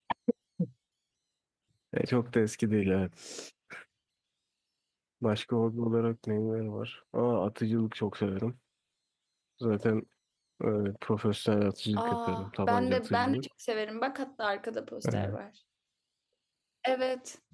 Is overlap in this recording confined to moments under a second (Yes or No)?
No